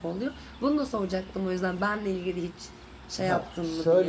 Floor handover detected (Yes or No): Yes